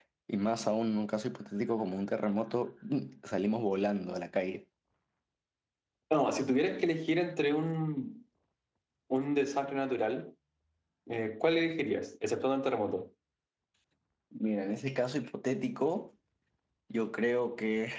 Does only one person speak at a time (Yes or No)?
Yes